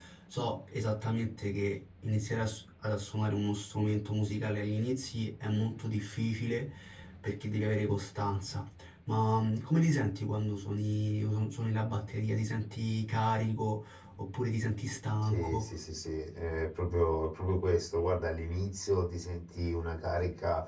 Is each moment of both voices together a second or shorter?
Yes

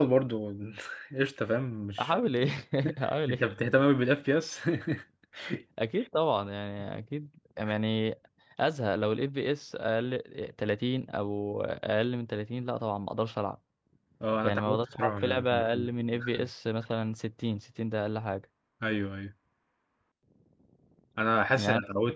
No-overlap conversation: No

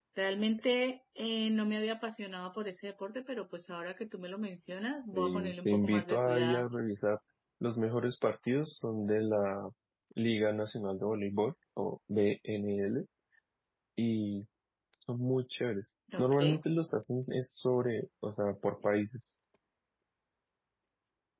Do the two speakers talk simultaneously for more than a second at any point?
Yes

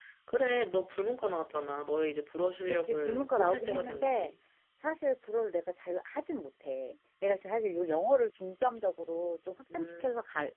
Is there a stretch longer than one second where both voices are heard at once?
Yes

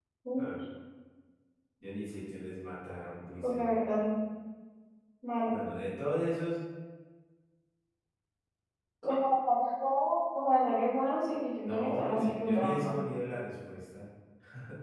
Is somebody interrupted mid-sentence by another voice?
Yes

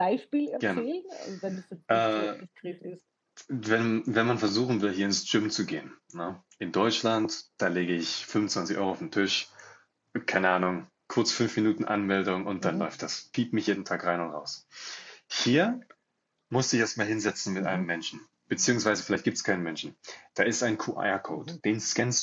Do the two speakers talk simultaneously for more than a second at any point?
No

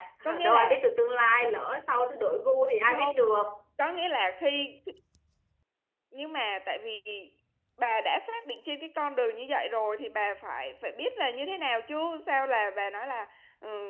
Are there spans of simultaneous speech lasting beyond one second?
No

